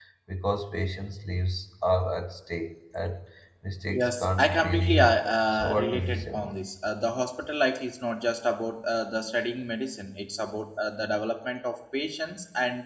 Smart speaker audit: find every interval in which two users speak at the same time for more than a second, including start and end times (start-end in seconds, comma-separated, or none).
3.9-6.5